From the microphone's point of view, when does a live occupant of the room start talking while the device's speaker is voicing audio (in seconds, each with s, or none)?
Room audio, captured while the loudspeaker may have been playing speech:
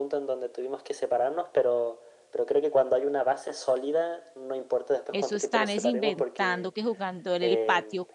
5.1 s